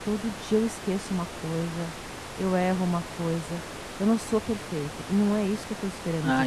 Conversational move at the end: taking over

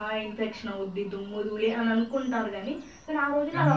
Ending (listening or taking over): listening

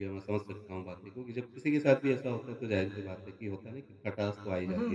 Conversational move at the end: taking over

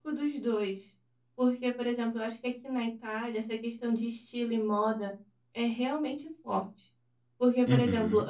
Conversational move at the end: listening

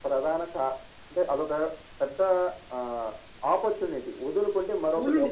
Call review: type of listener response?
taking over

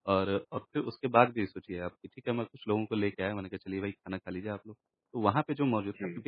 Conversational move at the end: listening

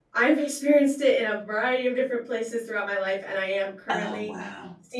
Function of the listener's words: listening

